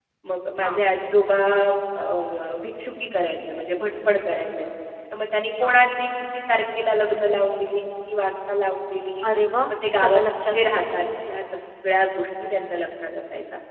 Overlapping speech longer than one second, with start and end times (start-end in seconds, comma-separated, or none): 9.7-11.0